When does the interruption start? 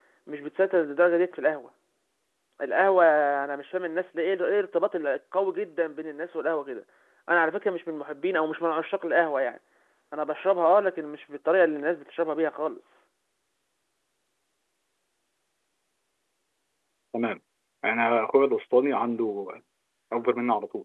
none

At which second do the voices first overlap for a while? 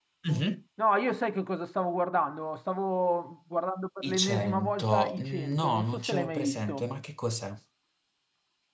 4.0 s

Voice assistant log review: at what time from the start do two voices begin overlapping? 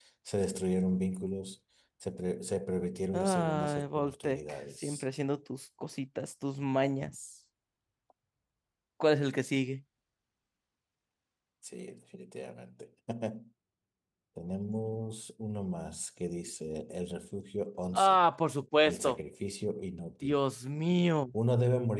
3.1 s

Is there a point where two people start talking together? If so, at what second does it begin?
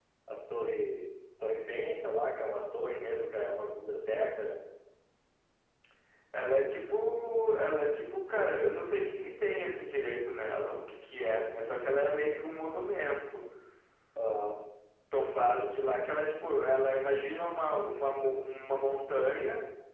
none

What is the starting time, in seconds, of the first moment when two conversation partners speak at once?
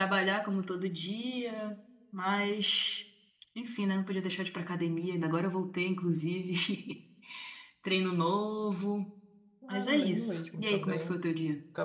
9.7 s

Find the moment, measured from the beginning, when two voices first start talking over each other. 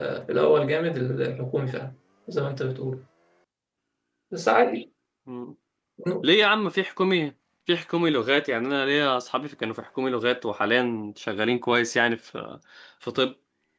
none

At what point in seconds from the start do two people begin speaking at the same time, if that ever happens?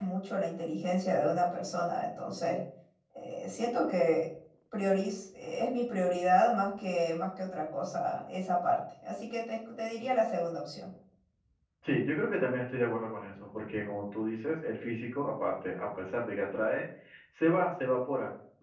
none

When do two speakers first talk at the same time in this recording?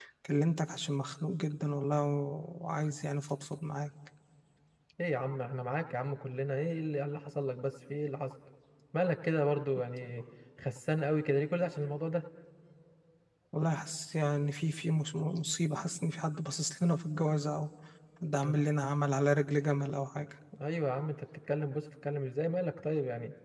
none

